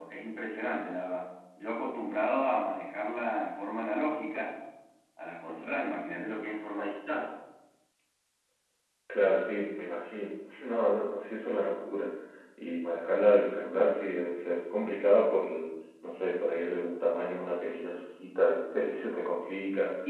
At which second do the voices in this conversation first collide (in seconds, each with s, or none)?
none